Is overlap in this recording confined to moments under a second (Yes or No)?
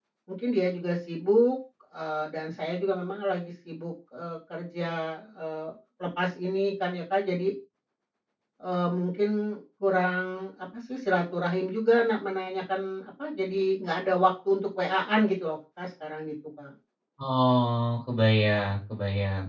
Yes